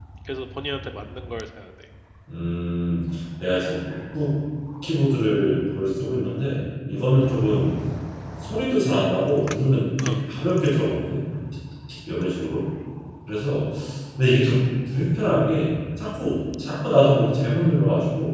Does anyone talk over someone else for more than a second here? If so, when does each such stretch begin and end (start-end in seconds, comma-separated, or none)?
none